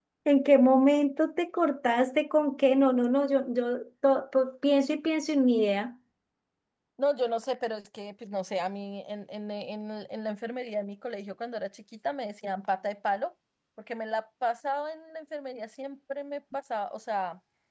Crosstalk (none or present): none